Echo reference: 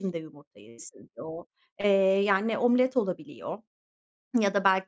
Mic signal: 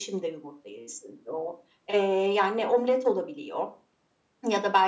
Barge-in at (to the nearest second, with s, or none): none